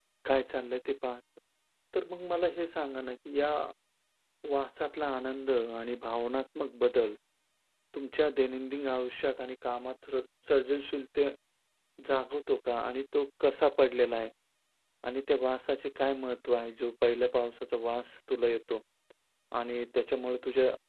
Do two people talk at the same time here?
No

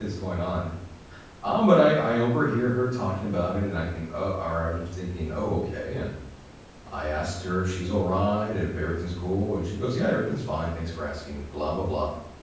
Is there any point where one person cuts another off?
No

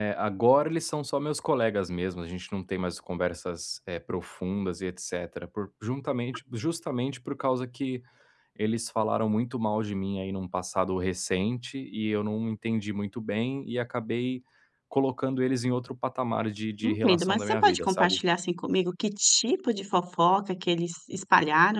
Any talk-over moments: Yes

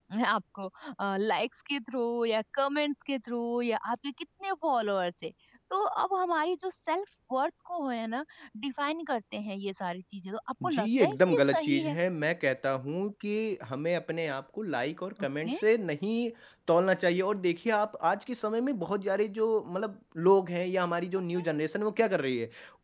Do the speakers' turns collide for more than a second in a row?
Yes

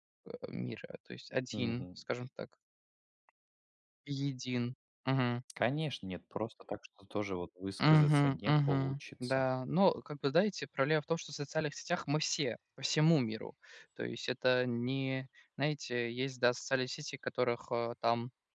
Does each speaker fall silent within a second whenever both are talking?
No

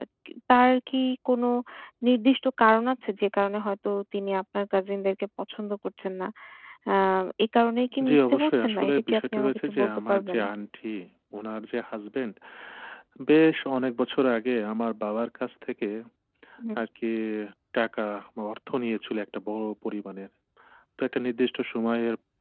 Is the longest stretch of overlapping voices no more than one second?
No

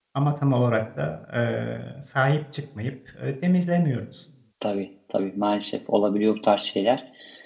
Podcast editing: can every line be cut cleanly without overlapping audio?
Yes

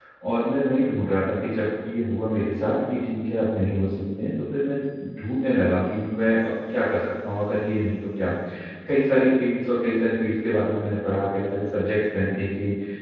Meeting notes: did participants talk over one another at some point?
No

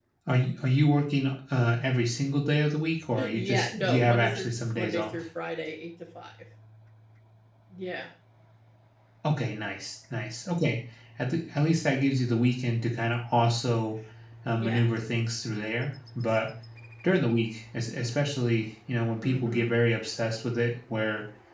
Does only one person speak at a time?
No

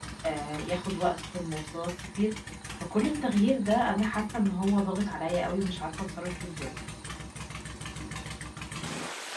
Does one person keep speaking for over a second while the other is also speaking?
No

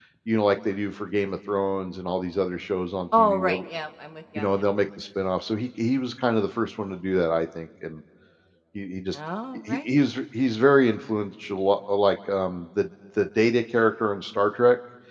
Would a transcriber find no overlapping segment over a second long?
Yes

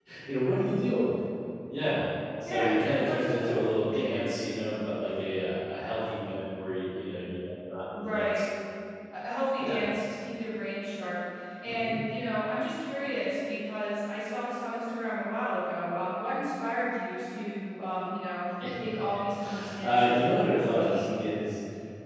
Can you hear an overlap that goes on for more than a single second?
Yes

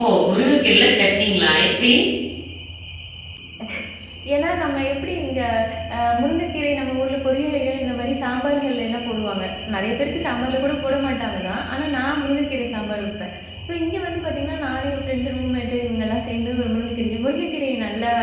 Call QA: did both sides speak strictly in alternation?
Yes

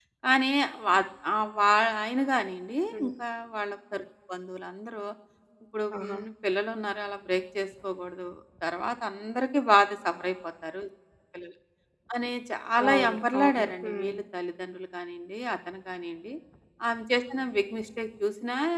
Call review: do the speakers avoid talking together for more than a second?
No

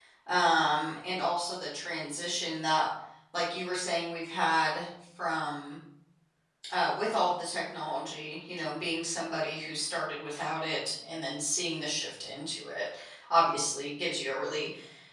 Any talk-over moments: No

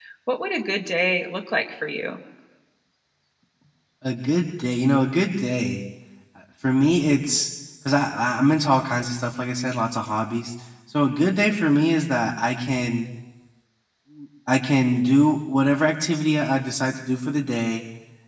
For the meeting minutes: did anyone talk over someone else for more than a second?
No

